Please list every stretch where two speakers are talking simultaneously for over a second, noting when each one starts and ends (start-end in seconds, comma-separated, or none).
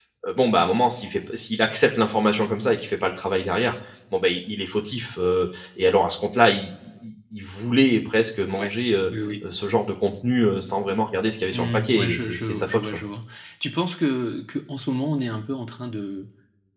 11.5-13.0